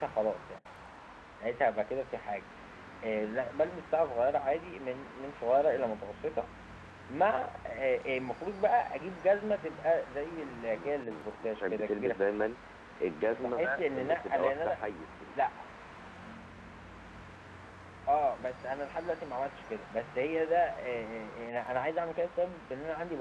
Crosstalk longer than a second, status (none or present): present